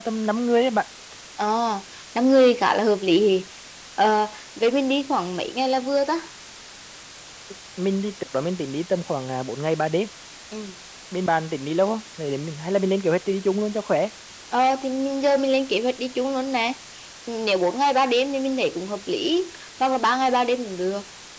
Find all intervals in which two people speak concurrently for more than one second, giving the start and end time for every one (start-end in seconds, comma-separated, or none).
none